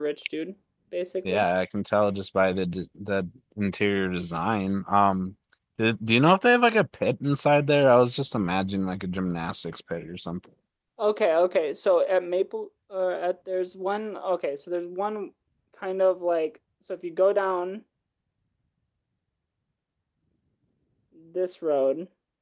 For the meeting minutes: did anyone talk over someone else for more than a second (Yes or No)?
No